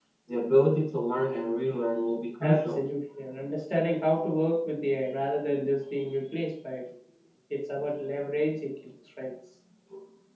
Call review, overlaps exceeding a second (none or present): none